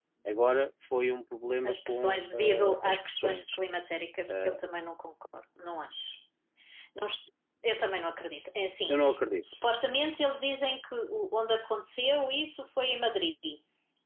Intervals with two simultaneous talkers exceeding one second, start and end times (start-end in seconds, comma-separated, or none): 1.6-3.6